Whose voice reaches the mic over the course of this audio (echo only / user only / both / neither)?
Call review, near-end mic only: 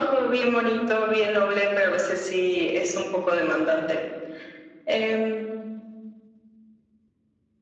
echo only